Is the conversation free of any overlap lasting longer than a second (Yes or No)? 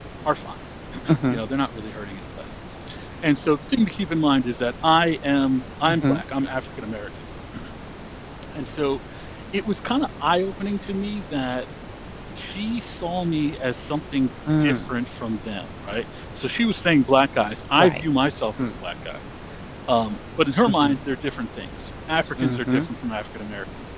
Yes